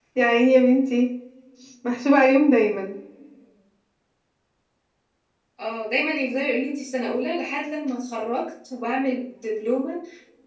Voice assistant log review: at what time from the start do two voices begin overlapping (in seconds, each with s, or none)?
none